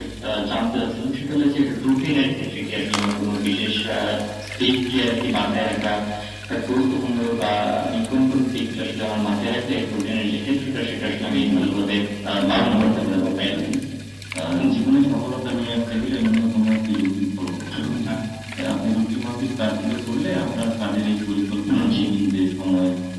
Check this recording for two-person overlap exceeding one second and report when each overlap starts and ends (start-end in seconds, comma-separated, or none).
12.3-13.5